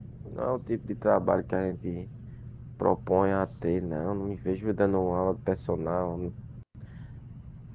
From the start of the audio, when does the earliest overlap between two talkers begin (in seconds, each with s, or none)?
none